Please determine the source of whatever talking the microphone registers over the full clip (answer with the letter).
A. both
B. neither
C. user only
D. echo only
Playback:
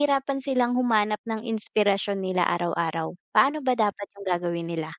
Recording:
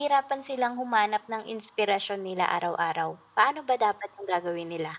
D